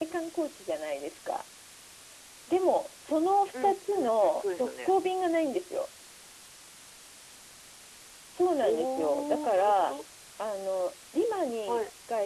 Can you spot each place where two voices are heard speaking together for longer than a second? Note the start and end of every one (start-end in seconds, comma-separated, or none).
3.6-4.9, 8.6-10.0